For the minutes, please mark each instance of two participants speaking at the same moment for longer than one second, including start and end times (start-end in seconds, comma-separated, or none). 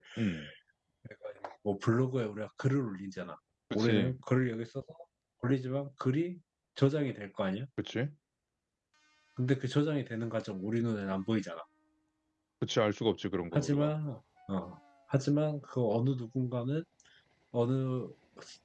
none